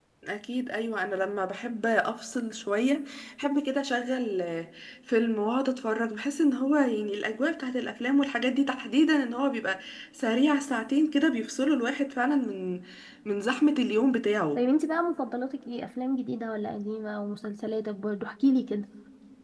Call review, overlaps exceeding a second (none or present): none